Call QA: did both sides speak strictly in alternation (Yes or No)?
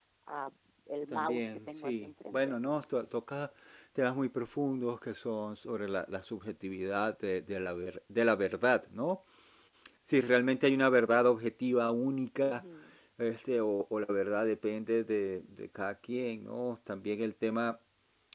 No